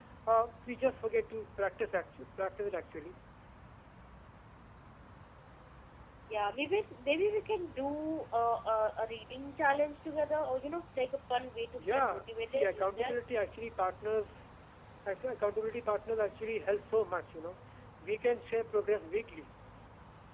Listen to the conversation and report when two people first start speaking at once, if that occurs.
11.8 s

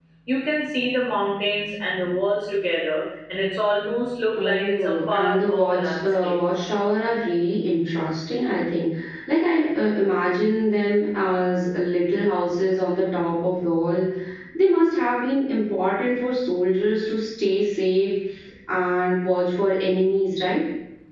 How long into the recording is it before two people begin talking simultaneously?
4.4 s

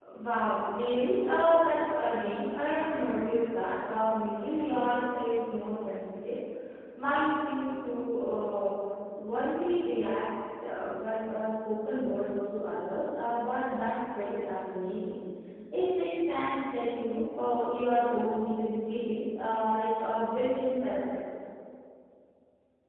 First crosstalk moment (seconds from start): none

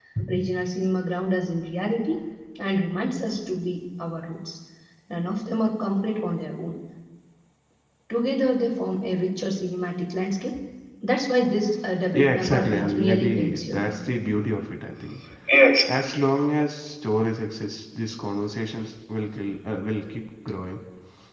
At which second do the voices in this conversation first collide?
12.1 s

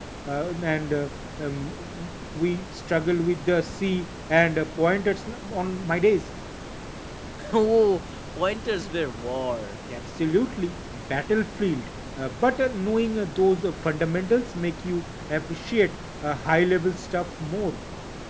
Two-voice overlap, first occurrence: none

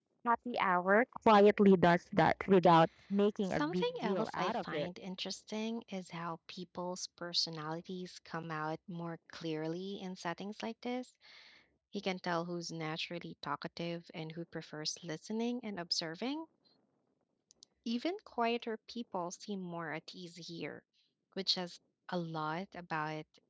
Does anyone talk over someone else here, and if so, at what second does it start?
3.4 s

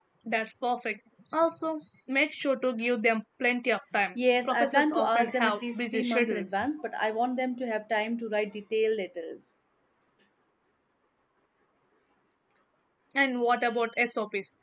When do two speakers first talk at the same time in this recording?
4.5 s

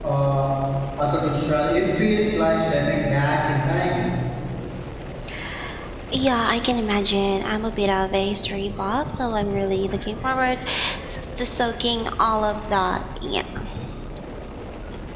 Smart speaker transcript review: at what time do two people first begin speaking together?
none

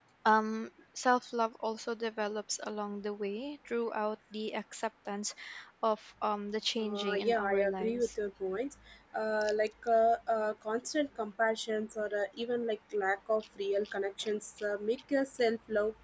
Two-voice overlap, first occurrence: 6.8 s

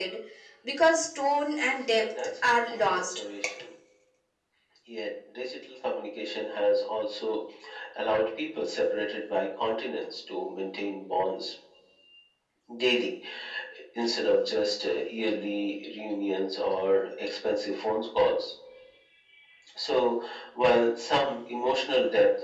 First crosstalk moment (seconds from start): 1.6 s

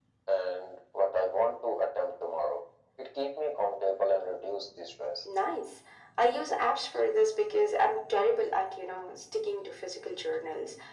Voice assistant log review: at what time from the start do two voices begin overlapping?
none

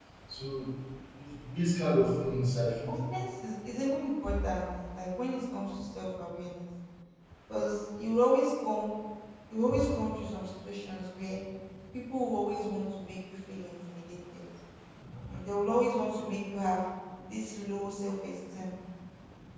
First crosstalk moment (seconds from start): none

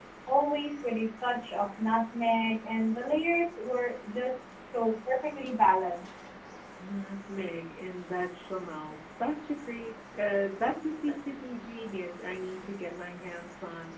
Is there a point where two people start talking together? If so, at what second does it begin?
none

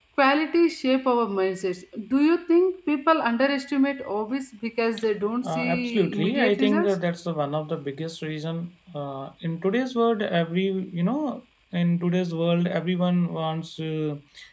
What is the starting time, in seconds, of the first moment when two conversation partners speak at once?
5.4 s

